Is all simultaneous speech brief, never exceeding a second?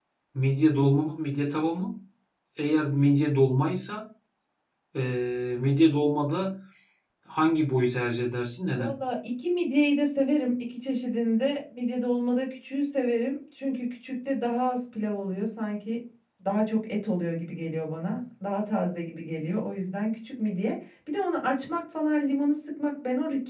Yes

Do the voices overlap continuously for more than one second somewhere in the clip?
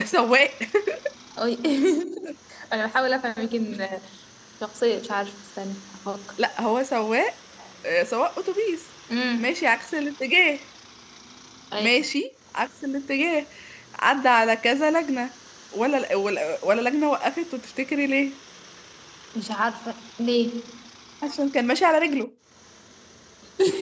No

